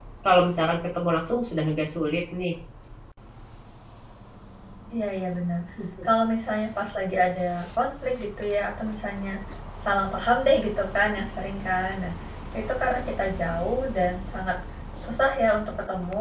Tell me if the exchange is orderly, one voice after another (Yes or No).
Yes